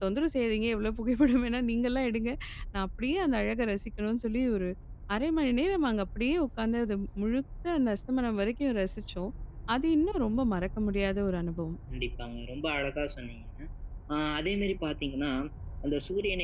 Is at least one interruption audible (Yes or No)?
No